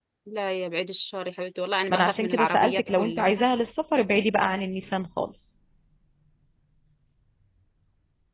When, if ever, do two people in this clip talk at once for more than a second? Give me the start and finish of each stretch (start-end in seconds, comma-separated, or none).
1.9-3.2